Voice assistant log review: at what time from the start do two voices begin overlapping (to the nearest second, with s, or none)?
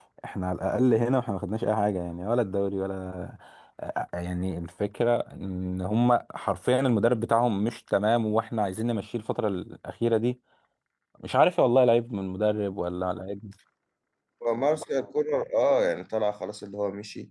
none